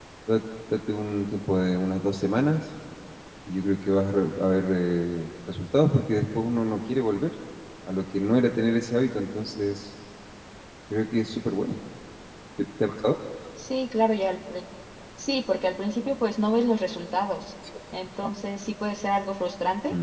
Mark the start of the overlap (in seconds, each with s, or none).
none